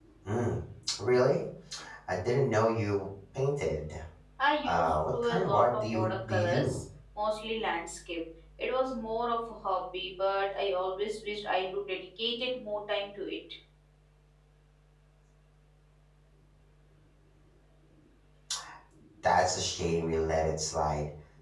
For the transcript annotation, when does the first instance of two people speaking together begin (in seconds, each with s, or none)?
4.6 s